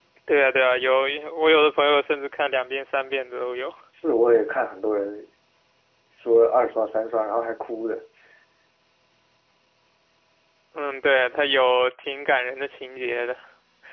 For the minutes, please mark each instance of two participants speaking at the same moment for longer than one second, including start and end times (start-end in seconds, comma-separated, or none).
none